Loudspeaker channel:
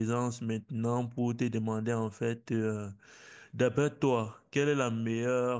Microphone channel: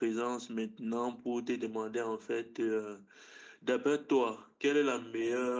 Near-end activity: none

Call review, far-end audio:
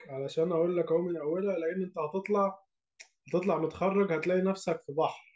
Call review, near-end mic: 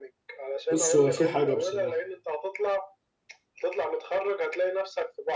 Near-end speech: present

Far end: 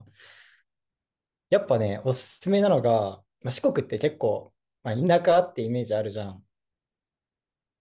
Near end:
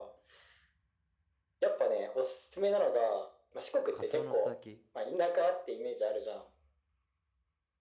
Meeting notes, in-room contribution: present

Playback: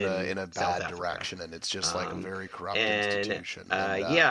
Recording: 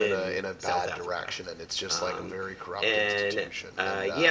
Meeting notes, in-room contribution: none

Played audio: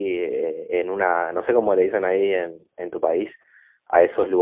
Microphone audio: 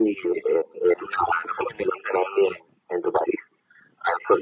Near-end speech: none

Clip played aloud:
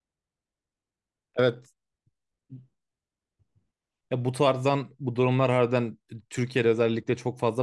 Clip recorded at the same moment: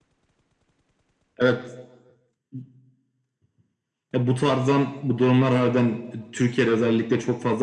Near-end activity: none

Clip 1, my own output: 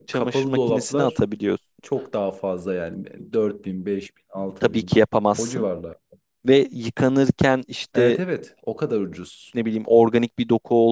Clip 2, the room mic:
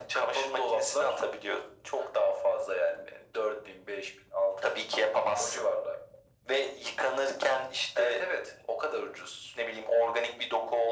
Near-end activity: none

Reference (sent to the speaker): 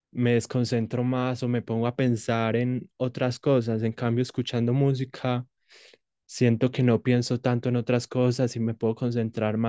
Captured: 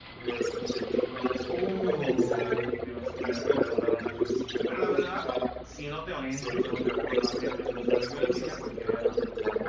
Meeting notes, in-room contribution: present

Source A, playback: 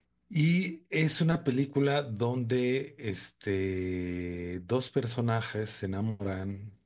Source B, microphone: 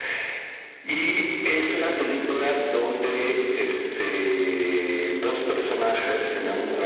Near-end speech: none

